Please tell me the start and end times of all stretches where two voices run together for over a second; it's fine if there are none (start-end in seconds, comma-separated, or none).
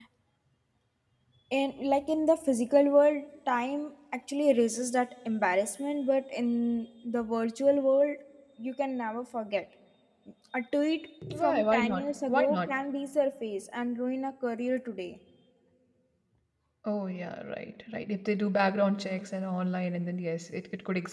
11.4-12.7